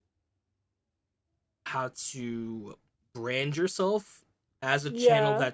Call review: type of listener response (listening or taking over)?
listening